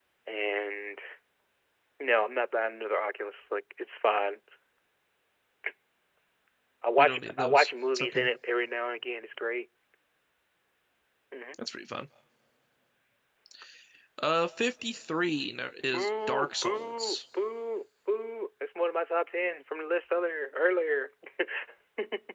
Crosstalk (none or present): present